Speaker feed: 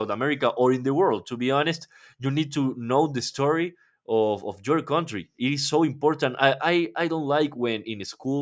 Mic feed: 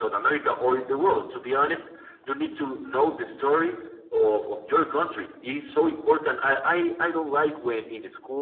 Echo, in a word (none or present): present